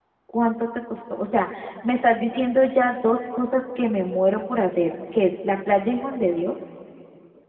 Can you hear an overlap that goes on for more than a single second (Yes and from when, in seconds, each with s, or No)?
No